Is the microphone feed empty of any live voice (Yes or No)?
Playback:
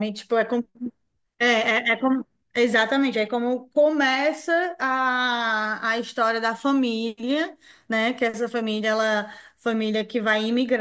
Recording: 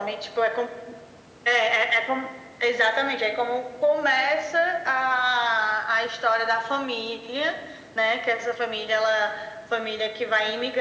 Yes